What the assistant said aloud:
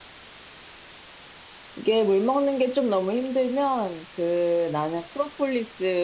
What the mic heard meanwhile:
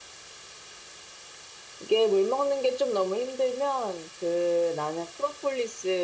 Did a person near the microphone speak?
No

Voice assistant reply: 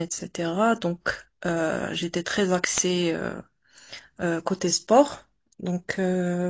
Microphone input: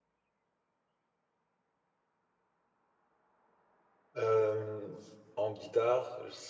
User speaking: Yes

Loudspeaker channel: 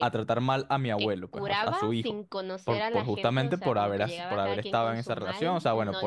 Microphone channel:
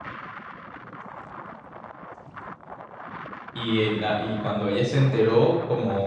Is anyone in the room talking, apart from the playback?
Yes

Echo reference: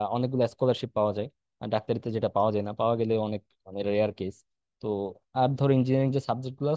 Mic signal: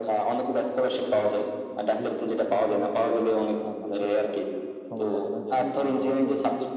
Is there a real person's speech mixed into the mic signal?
Yes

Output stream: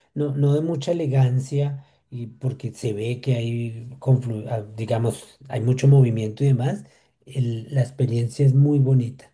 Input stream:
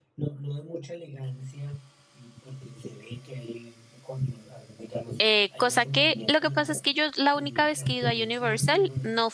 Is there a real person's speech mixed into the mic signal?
Yes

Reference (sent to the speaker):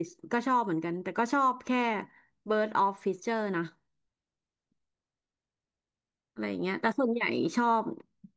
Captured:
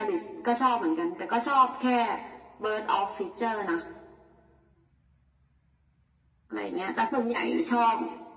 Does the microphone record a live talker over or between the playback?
No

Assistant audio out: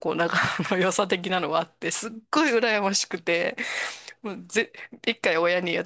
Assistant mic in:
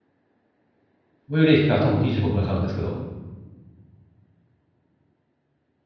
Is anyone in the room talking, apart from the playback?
Yes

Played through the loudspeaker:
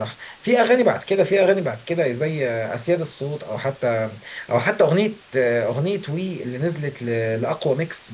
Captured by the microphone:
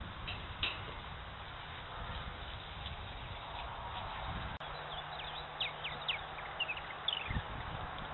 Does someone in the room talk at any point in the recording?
No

